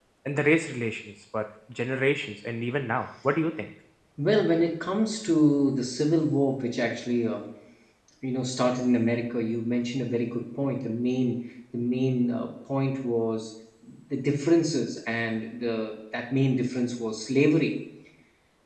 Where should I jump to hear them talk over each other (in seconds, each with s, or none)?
none